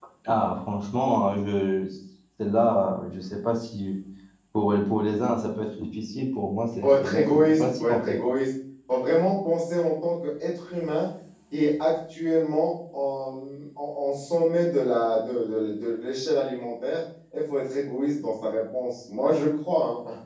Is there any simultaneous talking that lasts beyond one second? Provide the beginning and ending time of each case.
6.8-8.2

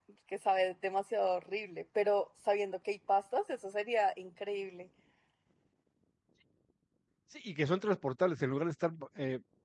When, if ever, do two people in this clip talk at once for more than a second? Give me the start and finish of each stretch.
none

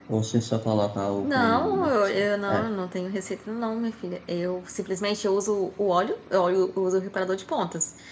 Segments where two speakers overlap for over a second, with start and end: 1.2-2.6

